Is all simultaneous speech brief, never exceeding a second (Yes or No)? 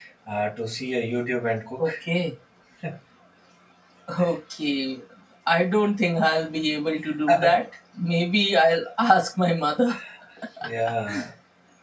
Yes